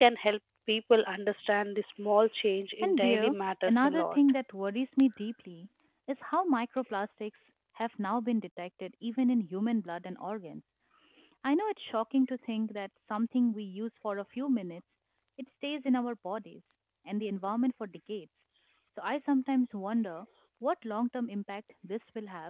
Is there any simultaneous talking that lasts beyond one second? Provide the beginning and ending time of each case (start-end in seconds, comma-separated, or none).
2.8-4.2